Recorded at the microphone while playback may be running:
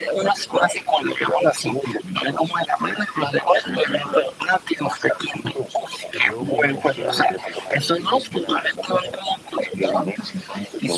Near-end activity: present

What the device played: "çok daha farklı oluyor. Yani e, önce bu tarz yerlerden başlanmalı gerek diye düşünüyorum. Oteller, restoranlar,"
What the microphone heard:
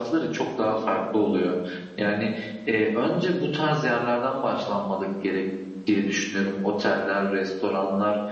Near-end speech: none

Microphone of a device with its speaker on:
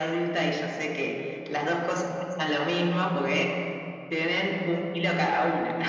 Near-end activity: none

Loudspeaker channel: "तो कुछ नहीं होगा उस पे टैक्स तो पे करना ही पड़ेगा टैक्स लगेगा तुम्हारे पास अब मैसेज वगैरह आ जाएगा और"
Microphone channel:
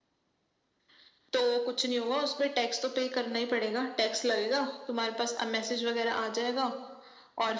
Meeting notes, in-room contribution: none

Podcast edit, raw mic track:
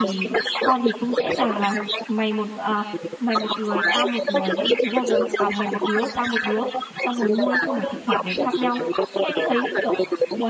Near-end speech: present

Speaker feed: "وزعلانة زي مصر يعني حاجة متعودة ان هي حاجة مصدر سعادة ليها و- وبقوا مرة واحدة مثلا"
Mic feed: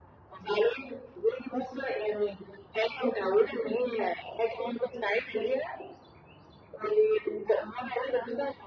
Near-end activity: none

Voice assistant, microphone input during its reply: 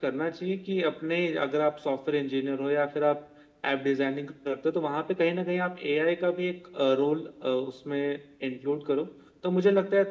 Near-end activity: none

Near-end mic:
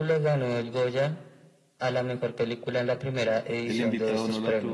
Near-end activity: present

